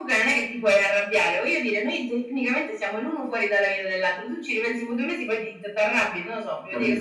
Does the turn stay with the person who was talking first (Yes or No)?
No